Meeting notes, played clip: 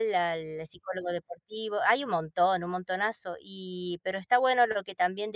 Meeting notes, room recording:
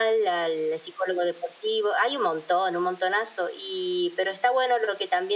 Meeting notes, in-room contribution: none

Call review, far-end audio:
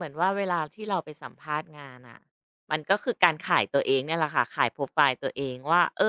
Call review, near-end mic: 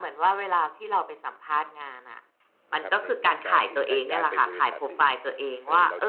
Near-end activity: present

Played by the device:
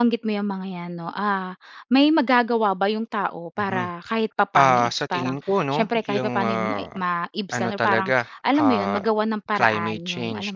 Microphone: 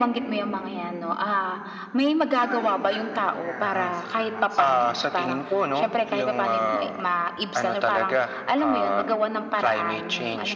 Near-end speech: present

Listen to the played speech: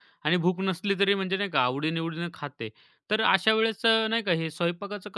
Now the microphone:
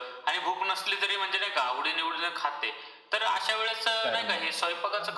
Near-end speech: present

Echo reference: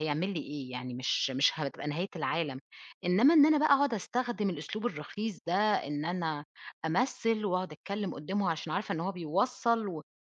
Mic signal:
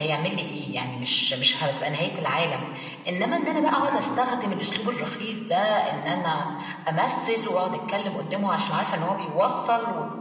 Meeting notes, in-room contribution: present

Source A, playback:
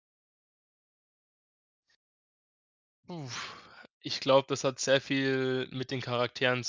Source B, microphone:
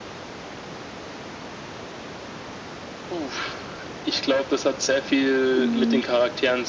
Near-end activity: present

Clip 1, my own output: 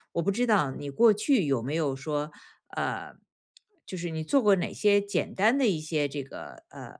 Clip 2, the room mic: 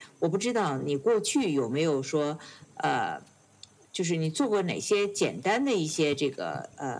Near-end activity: none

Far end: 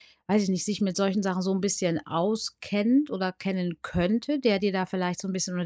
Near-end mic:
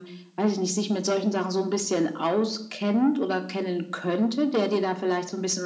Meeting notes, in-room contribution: none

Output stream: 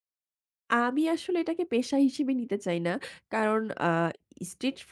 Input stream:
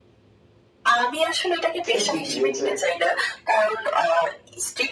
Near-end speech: present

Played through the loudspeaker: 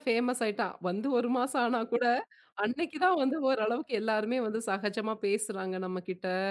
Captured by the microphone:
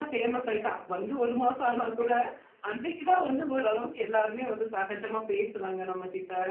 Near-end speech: none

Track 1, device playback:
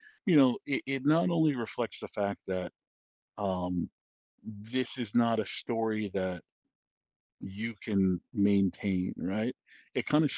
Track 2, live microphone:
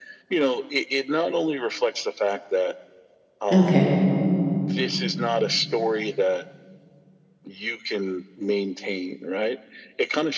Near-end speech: present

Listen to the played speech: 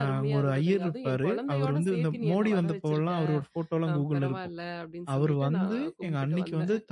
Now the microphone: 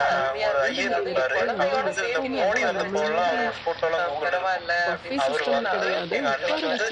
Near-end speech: present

